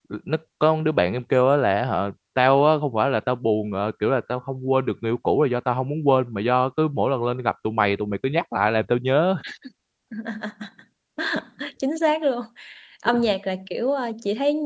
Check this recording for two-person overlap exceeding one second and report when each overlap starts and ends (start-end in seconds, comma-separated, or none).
none